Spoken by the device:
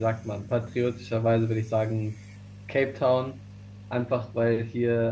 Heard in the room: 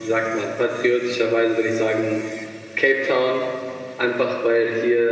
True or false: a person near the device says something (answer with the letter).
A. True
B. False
B